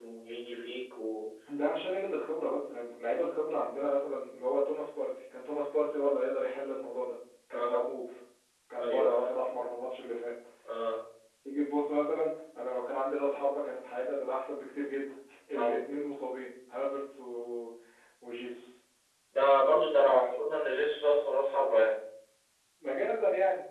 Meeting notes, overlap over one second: none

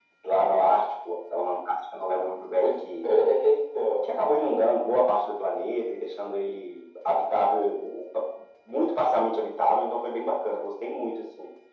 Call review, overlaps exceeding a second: none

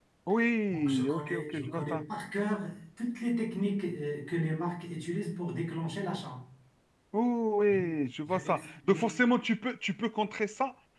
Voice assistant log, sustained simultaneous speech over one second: present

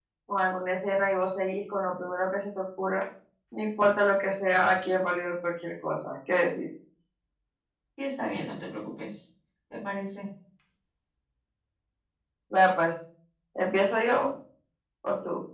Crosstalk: none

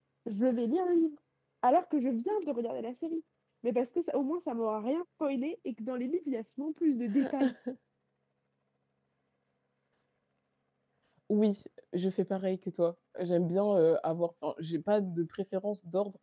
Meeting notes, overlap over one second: none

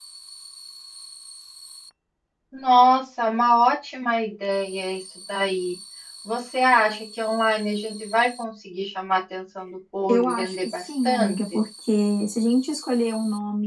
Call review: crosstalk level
present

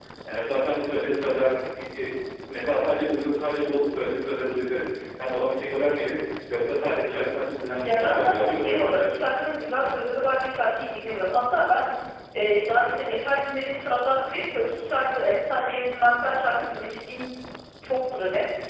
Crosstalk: present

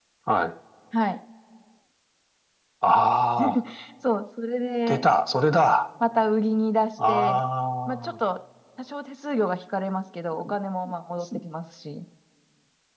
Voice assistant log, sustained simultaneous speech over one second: none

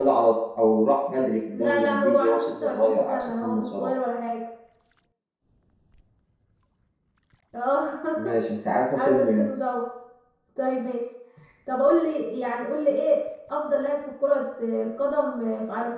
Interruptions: present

